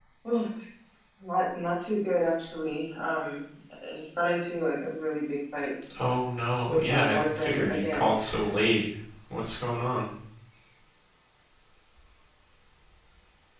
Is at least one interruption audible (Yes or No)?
Yes